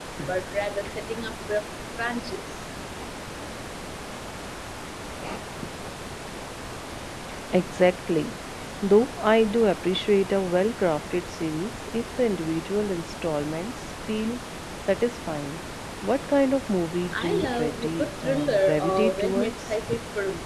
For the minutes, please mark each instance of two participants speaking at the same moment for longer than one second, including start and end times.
17.1-19.8

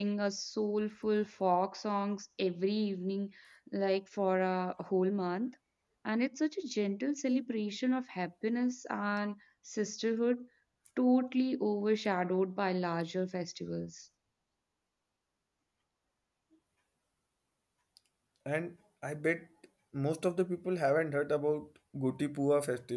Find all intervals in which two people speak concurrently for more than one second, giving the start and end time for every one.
none

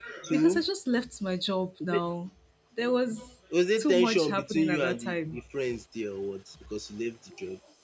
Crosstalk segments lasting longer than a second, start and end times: 3.8-5.4

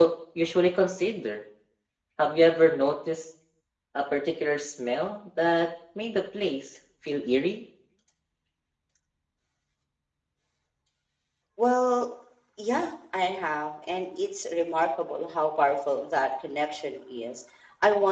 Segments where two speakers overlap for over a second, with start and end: none

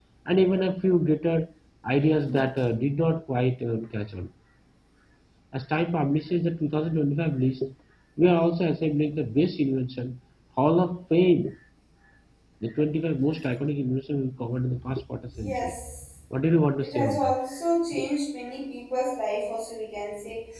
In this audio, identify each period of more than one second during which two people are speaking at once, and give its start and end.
none

